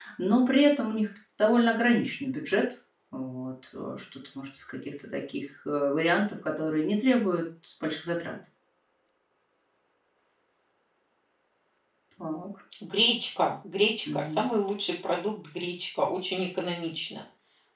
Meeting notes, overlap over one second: none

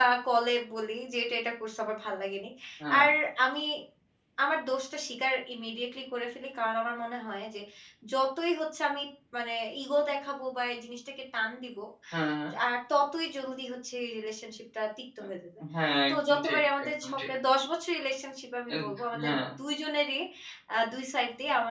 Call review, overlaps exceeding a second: present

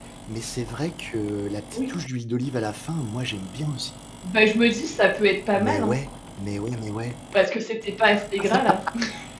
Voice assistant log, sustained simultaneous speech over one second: none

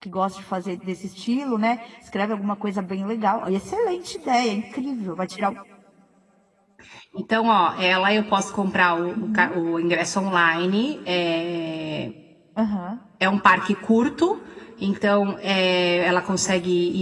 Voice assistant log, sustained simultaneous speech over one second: none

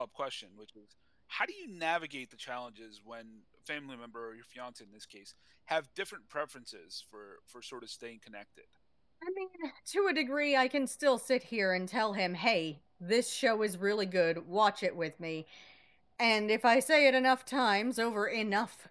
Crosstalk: none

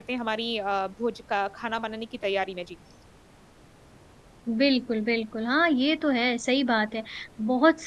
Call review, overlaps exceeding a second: none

